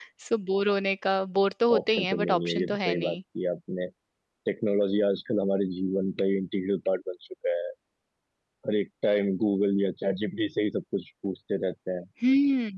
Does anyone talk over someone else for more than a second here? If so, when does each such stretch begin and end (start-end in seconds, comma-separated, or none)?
1.8-3.2